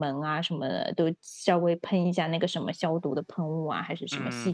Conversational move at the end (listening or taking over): taking over